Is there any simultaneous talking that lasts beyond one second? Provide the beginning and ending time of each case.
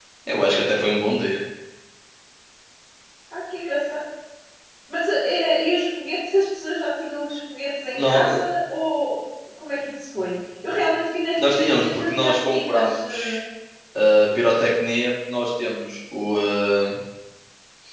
11.4-13.4

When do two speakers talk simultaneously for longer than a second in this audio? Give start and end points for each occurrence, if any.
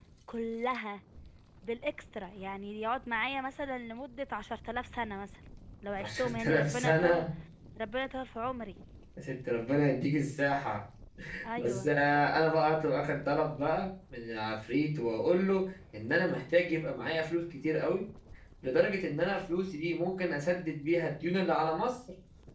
6.0-7.2

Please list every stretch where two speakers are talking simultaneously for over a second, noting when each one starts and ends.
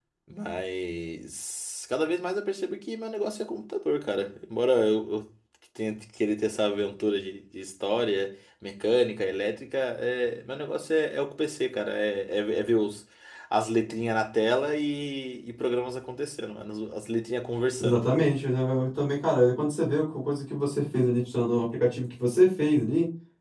none

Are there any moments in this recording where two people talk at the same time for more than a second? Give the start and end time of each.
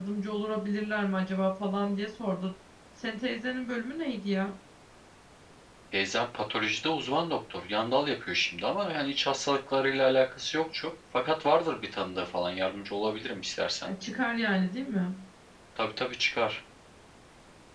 none

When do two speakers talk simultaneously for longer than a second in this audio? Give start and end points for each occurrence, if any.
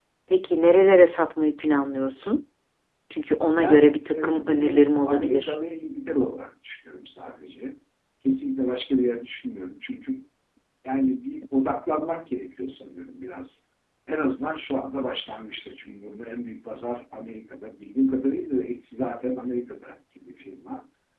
3.6-5.6

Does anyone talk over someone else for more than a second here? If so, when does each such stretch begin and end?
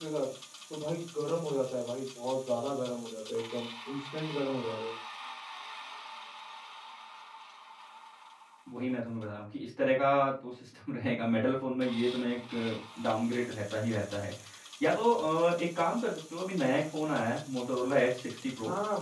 none

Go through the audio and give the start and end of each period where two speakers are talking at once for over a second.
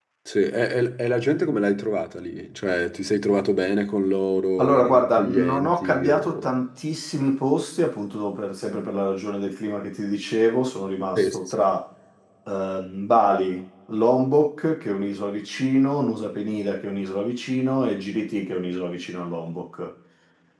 4.6-6.5

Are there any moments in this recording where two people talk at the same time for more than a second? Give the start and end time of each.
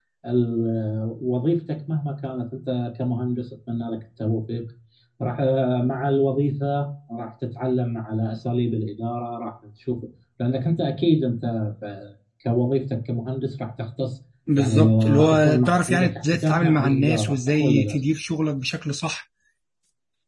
14.6-18.0

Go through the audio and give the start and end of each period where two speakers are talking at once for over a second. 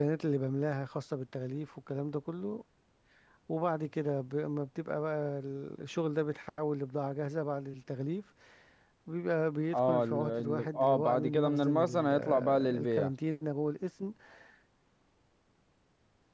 9.7-13.1

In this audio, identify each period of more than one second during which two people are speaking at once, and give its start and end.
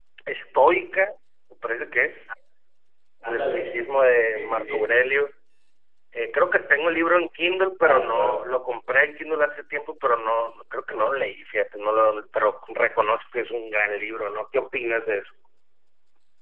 none

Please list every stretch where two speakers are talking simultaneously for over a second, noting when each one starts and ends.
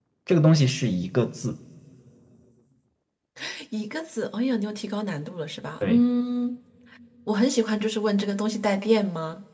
none

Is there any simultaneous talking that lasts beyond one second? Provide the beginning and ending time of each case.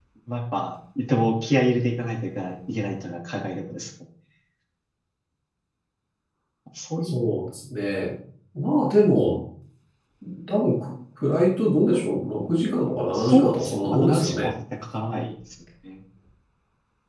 13.1-14.5

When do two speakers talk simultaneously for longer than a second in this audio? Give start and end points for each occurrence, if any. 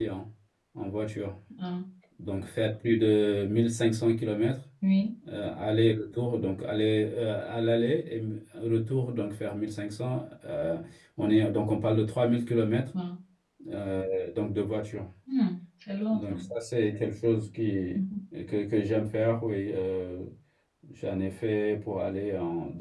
none

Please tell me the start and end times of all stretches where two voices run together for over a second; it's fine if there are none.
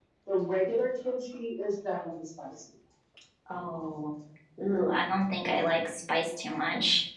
none

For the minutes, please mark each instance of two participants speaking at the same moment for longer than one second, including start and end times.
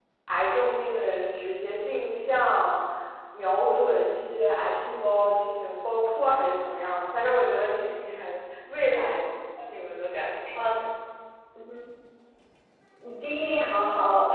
none

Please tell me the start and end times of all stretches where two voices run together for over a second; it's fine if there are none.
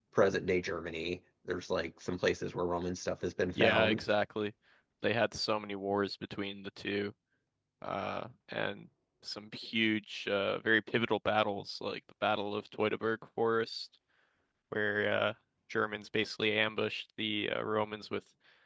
none

